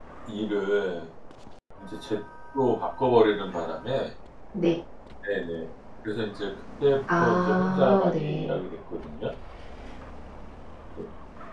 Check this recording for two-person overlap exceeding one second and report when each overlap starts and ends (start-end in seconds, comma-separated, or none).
7.2-8.6